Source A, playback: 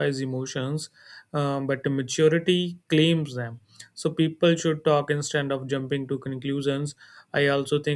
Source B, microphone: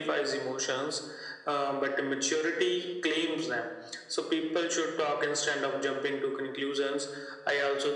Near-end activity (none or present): none